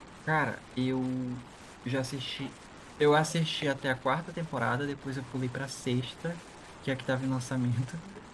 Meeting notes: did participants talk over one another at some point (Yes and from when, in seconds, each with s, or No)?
No